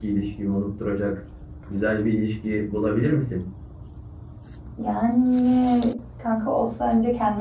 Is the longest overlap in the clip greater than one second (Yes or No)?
No